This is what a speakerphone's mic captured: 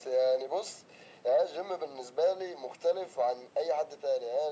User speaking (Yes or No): No